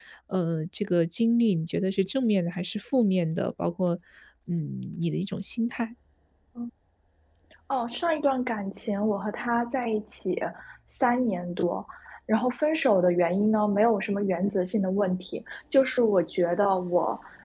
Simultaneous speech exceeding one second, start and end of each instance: none

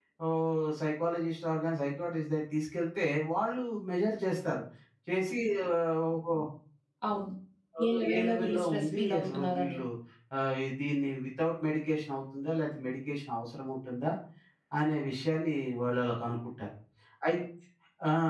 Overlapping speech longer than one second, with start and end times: 7.8-9.8

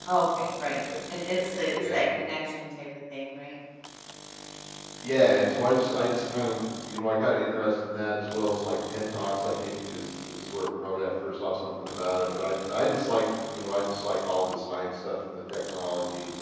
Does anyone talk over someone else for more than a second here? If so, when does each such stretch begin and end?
none

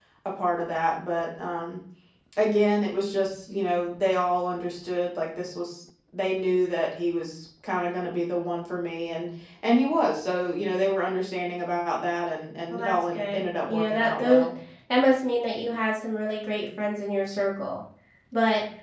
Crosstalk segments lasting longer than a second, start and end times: 12.7-14.4

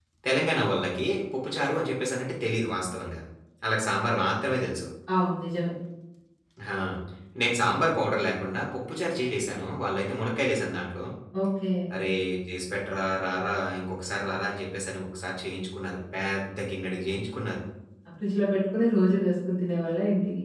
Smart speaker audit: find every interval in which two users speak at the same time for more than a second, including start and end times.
none

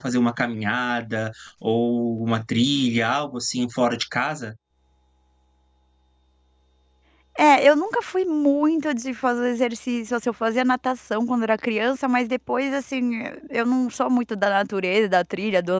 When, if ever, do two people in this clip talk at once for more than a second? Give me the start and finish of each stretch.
none

